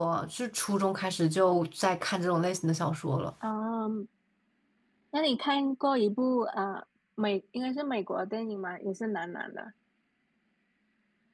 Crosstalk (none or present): none